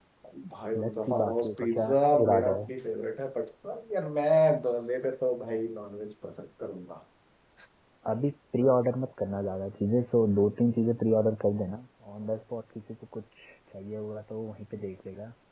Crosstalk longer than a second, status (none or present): present